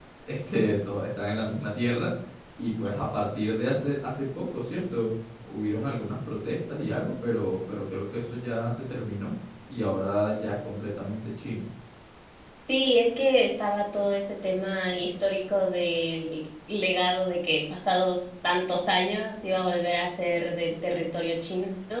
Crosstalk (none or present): none